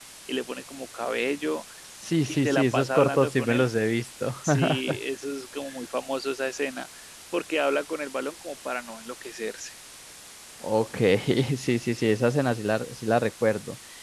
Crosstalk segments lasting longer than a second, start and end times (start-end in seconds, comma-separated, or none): 2.3-3.6